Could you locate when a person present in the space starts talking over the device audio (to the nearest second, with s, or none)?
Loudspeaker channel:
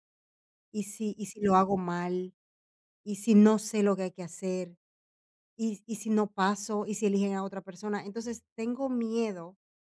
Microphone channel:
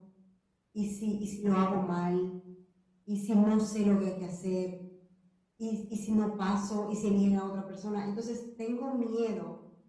none